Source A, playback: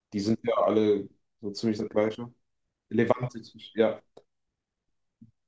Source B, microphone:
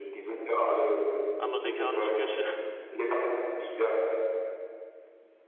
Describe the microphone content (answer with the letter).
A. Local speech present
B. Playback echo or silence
A